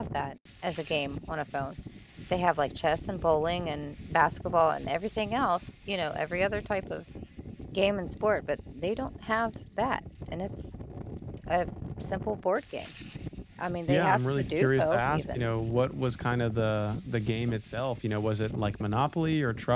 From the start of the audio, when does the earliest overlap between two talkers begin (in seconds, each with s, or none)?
13.9 s